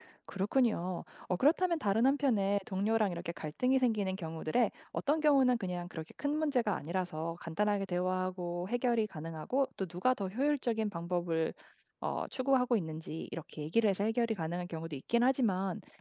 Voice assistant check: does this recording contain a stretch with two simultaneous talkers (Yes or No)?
No